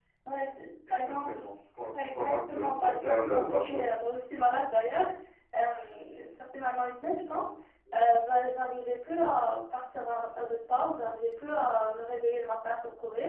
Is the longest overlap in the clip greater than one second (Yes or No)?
Yes